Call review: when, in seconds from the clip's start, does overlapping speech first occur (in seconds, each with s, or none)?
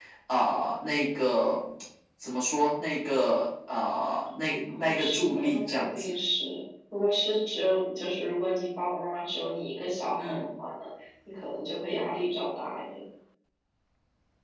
4.7 s